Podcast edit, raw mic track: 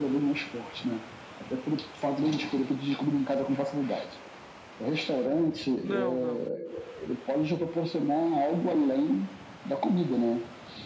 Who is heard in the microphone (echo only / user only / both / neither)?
both